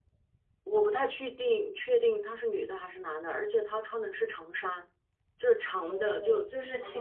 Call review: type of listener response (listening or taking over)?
taking over